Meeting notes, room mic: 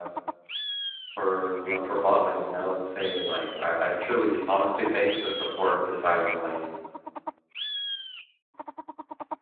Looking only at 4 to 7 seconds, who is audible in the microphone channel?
user only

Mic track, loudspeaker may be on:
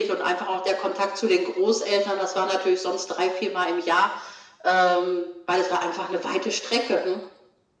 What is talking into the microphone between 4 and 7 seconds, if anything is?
echo only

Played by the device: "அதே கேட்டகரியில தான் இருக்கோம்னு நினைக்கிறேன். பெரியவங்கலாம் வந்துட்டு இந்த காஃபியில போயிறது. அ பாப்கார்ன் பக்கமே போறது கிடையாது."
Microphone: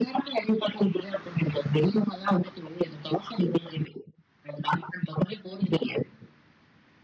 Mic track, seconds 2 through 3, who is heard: echo only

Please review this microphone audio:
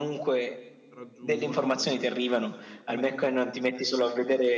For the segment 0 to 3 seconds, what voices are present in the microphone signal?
both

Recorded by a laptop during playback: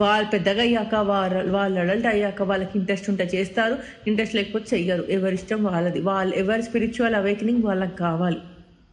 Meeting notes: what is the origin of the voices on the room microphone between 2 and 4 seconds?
echo only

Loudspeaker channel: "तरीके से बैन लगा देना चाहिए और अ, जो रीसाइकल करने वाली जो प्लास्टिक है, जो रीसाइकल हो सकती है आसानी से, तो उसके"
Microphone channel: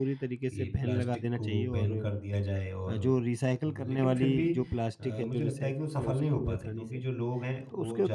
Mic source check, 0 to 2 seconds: both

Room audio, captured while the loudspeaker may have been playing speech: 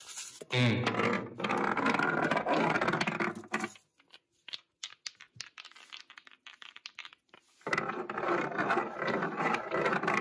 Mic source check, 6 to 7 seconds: neither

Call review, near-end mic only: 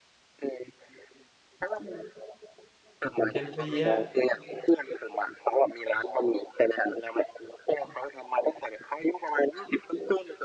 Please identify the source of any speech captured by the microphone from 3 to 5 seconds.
both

